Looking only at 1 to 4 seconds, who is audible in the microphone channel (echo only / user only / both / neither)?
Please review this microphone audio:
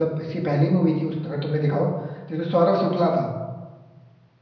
user only